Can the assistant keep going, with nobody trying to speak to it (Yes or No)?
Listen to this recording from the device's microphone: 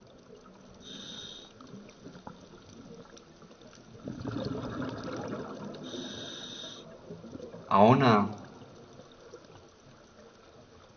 No